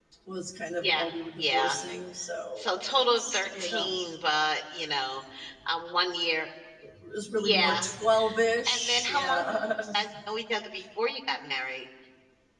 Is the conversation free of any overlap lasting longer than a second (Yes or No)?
No